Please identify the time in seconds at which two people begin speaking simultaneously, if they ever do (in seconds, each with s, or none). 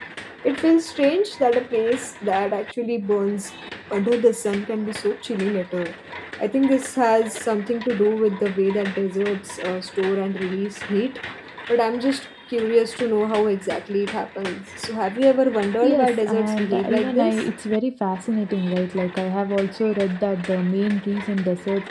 15.8 s